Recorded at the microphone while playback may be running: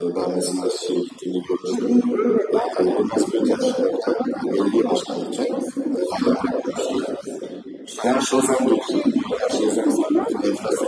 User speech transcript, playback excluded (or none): none